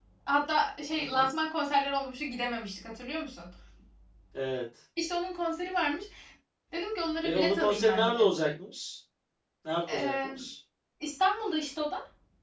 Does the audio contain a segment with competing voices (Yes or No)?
Yes